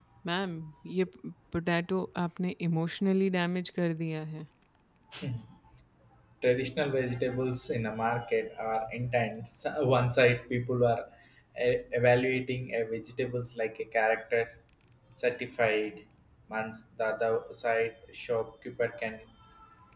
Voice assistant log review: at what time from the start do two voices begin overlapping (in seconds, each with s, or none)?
none